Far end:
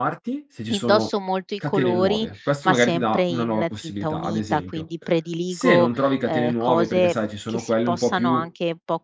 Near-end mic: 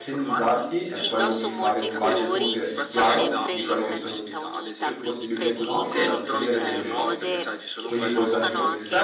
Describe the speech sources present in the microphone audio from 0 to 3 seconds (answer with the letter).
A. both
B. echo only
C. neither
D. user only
A